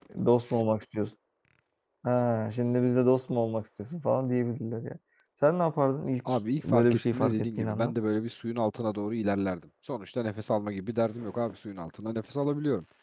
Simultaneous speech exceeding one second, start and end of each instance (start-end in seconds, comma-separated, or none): 6.3-7.9